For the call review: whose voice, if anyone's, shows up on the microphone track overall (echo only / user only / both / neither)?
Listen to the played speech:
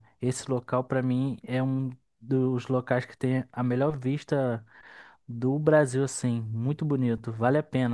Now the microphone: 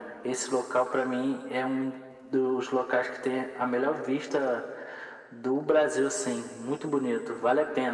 echo only